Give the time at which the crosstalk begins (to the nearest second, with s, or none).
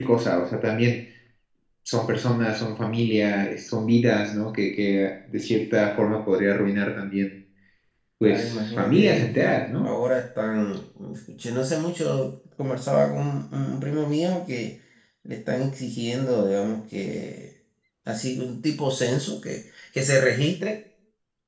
8 s